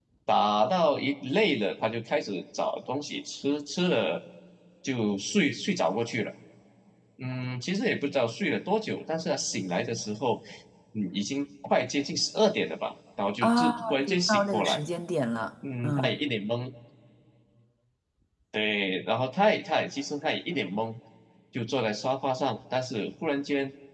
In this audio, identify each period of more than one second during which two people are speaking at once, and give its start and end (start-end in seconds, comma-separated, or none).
13.4-14.8